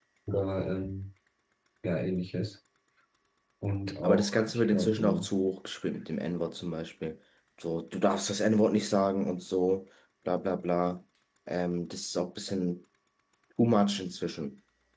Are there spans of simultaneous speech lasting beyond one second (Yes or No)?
Yes